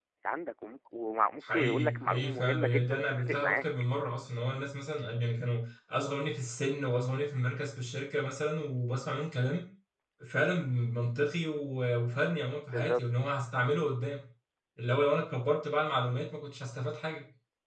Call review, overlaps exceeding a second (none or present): present